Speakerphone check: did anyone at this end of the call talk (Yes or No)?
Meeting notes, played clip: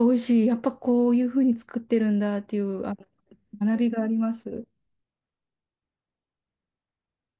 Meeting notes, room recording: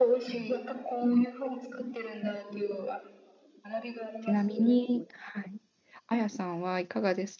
Yes